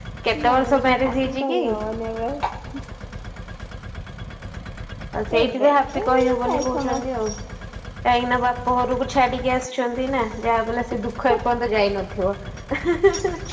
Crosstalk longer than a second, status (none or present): present